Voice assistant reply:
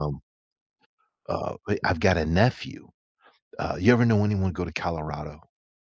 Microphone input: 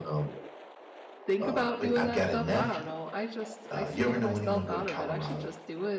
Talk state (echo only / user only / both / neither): both